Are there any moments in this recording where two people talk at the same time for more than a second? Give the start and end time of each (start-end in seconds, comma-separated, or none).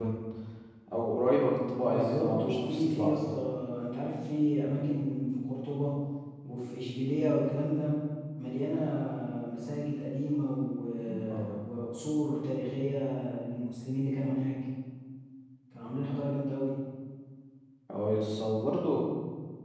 1.7-3.3